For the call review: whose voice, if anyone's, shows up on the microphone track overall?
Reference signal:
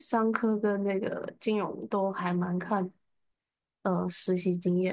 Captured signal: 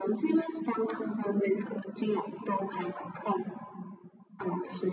echo only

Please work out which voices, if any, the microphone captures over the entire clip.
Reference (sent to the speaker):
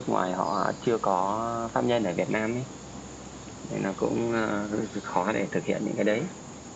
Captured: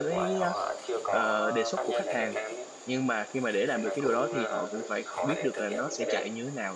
both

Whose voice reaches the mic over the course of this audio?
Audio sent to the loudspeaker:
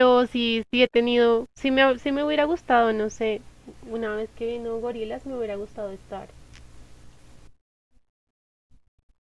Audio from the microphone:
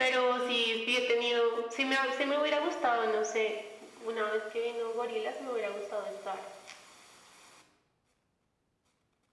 echo only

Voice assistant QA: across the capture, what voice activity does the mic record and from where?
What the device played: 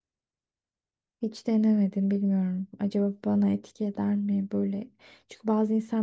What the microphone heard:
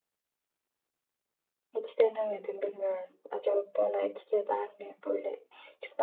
echo only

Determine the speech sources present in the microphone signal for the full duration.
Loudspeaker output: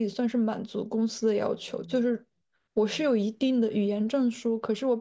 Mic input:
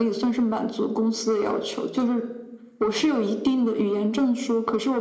echo only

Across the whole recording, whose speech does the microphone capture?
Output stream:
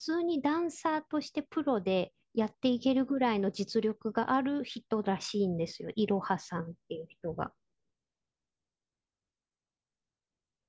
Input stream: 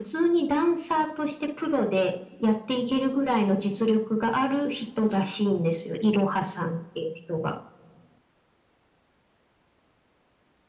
echo only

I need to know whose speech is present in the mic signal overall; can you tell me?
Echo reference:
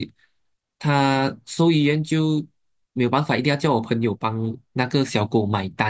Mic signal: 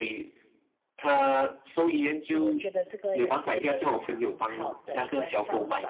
both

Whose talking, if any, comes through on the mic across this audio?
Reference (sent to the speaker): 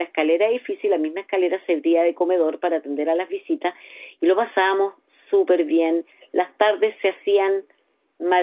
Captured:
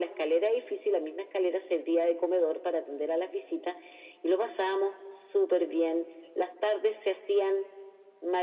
echo only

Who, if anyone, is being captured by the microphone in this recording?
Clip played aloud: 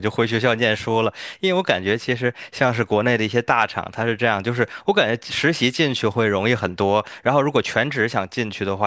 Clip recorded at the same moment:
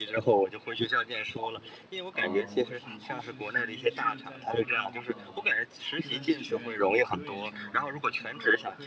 both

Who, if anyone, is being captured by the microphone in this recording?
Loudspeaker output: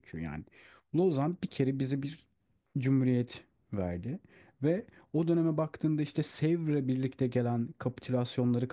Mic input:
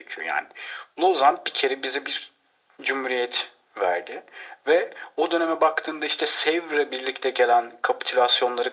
echo only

